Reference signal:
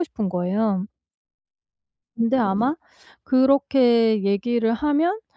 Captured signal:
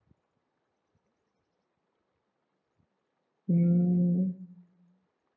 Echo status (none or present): none